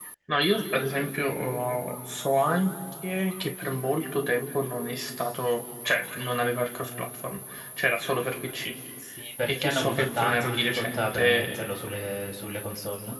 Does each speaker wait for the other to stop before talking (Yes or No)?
No